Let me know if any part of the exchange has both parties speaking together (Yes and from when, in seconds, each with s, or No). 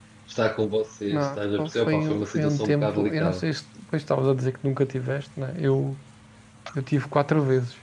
Yes, from 1.1 s